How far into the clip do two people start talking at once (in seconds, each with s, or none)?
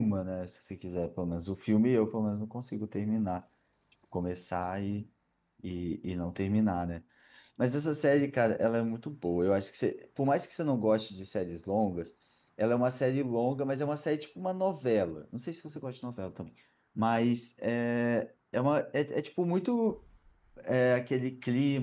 none